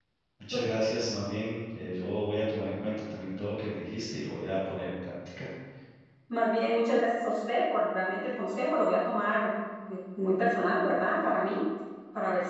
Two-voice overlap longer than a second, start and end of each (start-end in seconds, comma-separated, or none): none